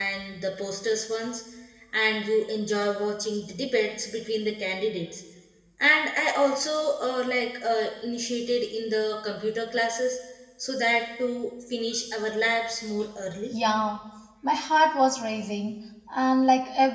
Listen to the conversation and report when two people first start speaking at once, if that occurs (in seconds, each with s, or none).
none